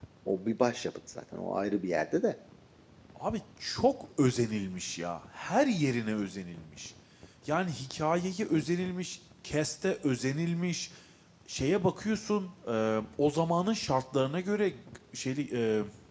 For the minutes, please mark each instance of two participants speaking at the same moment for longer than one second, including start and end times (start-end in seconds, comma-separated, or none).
none